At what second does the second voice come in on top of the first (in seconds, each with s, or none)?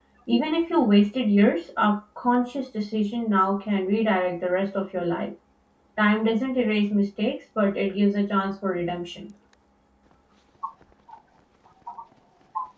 none